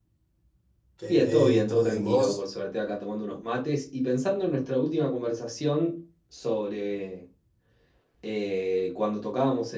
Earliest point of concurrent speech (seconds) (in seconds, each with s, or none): 1.1 s